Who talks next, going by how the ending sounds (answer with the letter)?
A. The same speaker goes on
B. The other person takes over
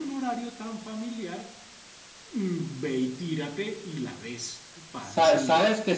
B